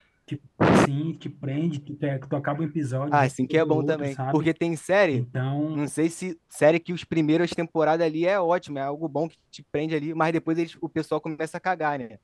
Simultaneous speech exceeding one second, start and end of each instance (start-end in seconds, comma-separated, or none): 3.1-4.5